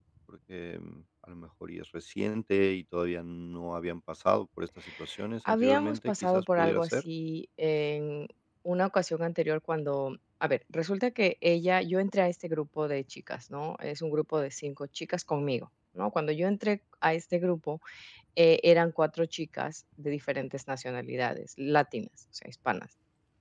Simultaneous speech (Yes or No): Yes